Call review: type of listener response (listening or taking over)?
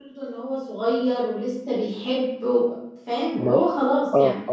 taking over